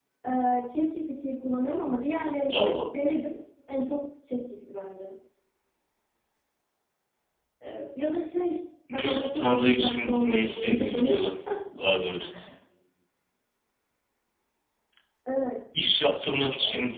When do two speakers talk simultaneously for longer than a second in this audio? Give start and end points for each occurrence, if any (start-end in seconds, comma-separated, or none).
8.9-11.2